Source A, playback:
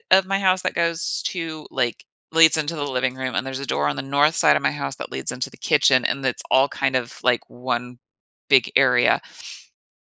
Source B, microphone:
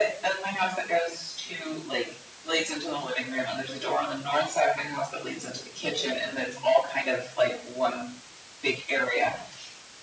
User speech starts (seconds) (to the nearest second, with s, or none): none